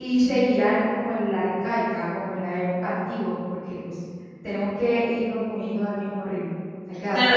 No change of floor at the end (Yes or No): No